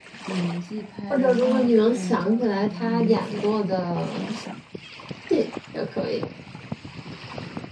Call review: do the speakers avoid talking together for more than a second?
No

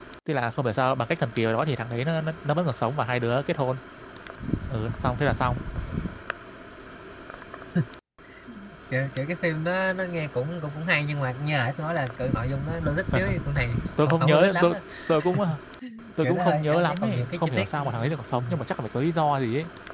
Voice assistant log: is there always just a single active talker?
No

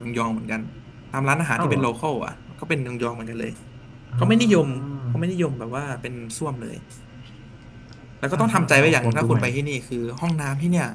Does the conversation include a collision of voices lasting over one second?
Yes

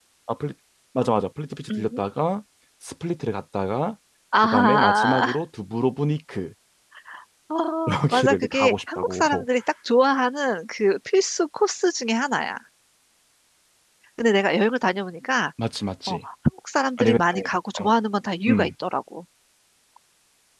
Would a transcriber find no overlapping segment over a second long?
No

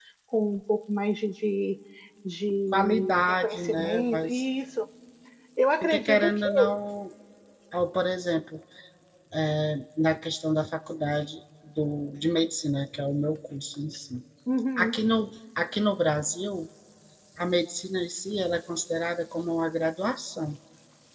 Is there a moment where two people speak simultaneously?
Yes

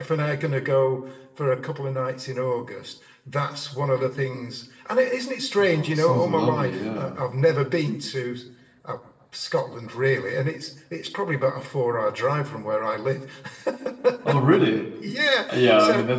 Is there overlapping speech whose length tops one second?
Yes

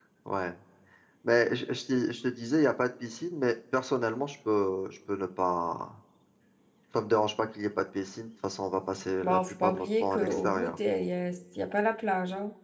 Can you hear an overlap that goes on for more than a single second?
Yes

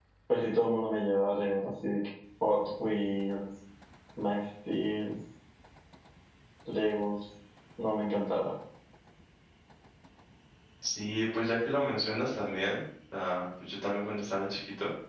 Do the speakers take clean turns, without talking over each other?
Yes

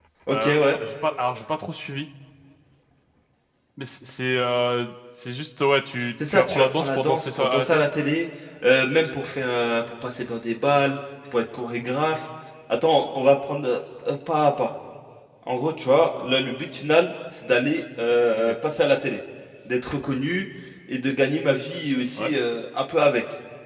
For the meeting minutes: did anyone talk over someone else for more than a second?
Yes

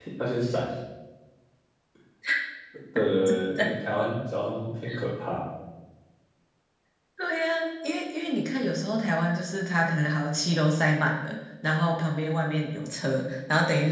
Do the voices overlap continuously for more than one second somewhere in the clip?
No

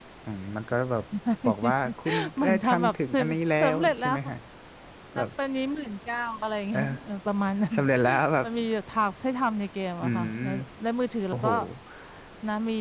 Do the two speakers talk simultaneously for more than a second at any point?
Yes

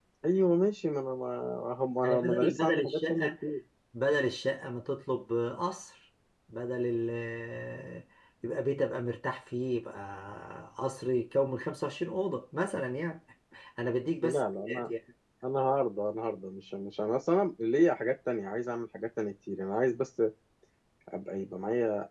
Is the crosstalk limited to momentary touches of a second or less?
No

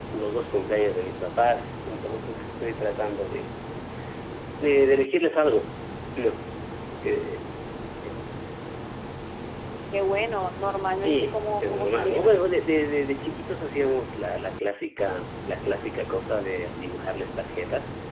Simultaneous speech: Yes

